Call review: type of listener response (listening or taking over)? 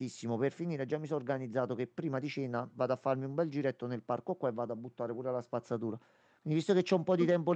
listening